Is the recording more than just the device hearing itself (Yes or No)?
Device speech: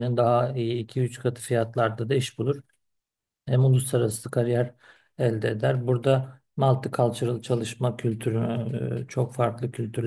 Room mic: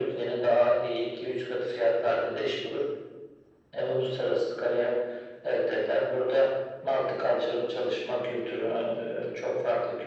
No